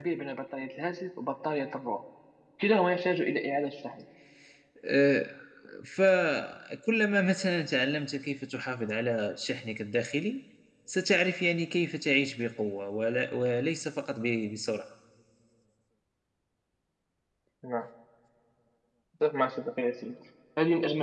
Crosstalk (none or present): none